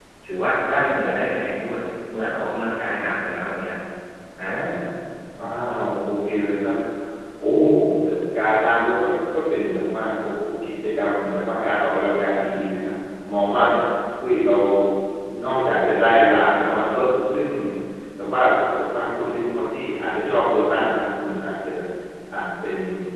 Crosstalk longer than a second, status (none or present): none